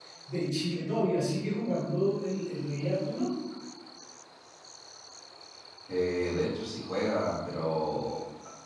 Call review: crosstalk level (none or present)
none